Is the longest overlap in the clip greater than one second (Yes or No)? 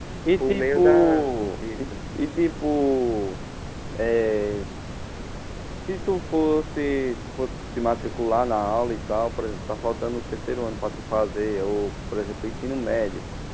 Yes